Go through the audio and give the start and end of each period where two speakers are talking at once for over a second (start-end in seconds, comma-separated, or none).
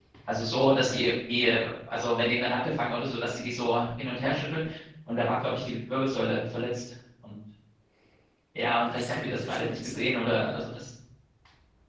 8.9-10.5